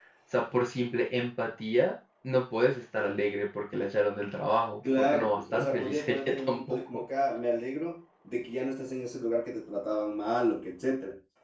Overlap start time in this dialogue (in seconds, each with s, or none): 4.8 s